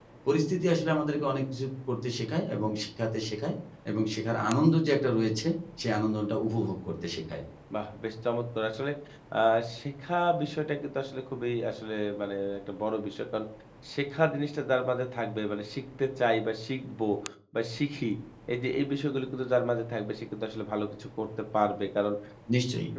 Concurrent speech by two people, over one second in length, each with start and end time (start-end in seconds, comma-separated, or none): none